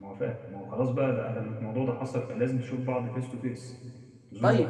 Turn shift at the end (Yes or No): Yes